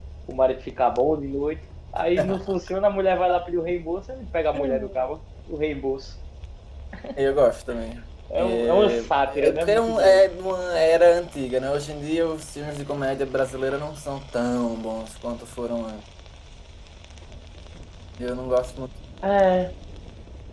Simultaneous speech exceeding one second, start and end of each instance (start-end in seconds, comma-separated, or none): 8.4-10.3